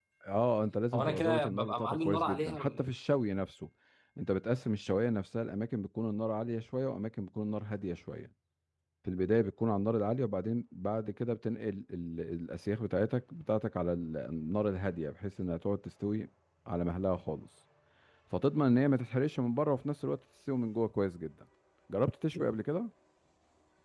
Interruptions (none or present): present